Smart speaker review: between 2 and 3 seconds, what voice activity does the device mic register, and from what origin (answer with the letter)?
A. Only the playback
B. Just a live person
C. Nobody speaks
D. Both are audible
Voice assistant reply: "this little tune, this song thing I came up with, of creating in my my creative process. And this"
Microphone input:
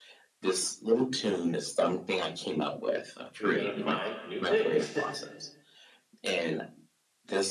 A